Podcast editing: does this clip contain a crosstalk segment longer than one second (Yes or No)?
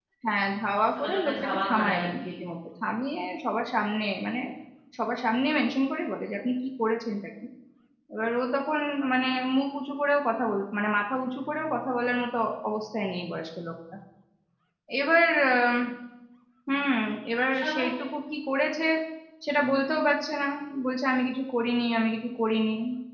Yes